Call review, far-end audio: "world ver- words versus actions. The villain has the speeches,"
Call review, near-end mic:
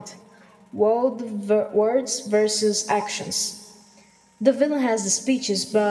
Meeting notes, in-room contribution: none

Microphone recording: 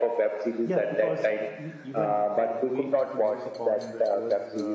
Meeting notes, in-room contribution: present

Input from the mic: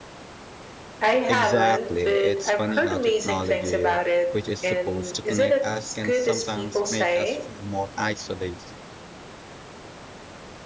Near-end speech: present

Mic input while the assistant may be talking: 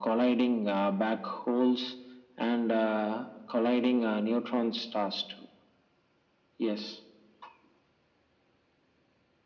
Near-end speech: none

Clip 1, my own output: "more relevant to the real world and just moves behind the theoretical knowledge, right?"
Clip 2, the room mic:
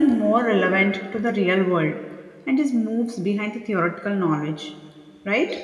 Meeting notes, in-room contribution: none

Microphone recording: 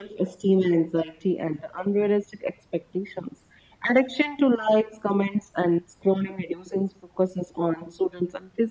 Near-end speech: none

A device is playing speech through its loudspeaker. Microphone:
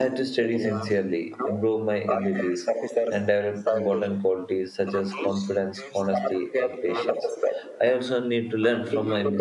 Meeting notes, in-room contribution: present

